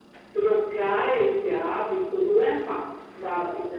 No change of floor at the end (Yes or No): No